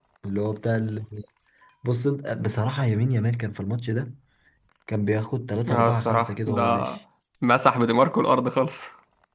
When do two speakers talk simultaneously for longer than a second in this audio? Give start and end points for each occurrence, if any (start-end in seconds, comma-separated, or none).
5.7-6.9